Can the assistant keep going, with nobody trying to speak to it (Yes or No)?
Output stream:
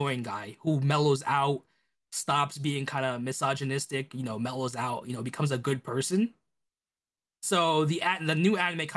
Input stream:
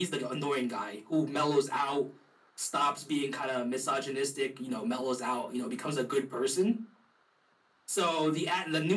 Yes